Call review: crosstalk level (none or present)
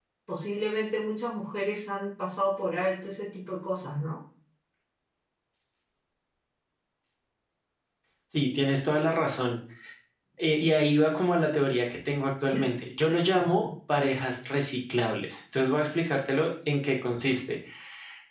none